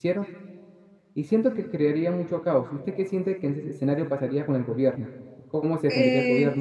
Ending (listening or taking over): taking over